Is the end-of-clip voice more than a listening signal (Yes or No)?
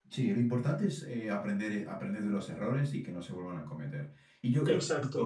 No